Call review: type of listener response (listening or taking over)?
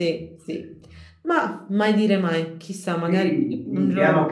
taking over